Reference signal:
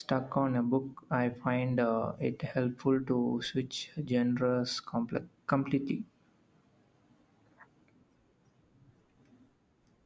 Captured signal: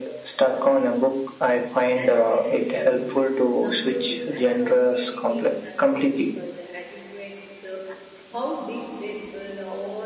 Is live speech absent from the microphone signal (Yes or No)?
No